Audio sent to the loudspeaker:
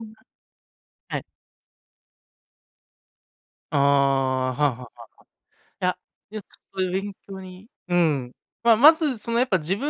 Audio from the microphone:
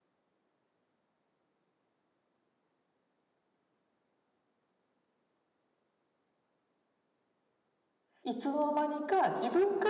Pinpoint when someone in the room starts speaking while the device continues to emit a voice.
8.2 s

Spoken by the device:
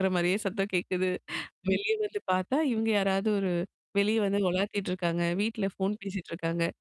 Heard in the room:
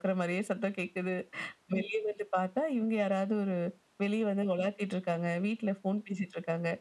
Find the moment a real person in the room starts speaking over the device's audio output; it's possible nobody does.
none

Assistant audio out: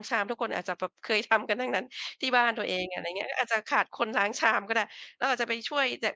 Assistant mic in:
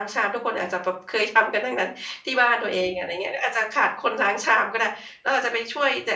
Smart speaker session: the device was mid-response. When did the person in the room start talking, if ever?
none

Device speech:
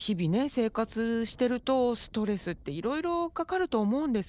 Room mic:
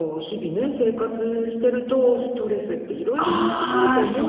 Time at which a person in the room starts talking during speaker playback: 3.2 s

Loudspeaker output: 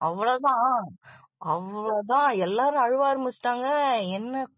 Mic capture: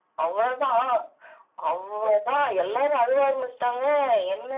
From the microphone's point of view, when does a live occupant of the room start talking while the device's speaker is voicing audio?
none

